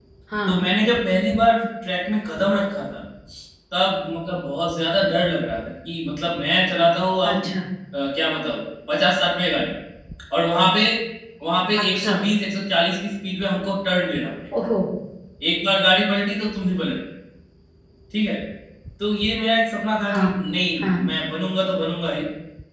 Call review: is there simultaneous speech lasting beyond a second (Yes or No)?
No